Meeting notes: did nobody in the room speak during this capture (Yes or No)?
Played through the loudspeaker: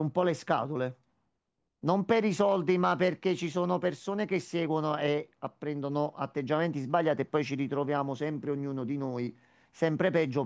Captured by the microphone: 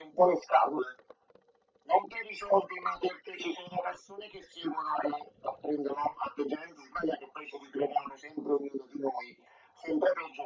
Yes